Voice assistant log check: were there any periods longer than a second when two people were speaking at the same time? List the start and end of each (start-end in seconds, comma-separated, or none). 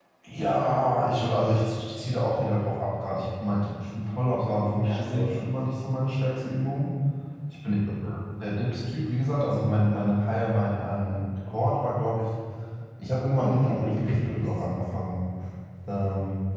13.3-14.8